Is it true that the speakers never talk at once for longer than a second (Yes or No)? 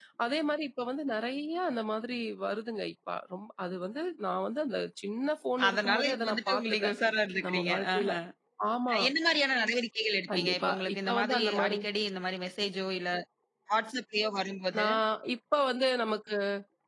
No